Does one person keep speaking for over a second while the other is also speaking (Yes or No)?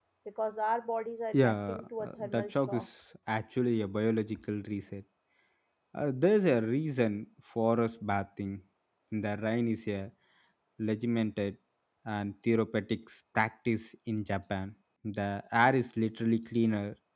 Yes